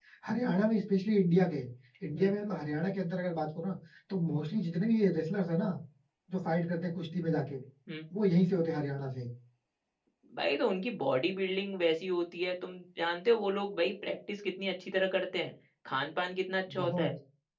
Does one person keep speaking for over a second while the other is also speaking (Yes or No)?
No